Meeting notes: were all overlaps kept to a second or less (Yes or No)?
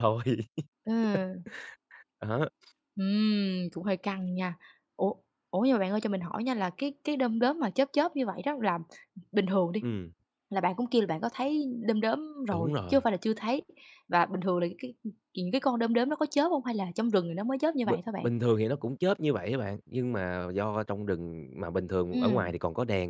Yes